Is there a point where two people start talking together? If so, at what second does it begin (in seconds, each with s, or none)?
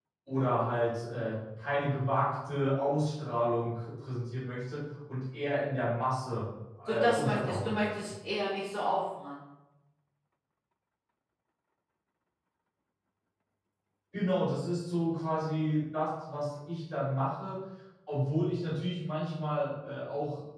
6.8 s